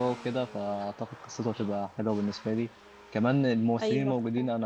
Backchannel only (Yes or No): Yes